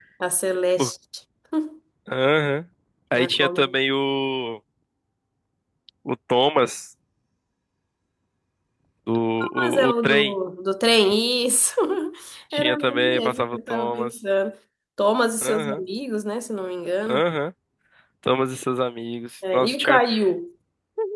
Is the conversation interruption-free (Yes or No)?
No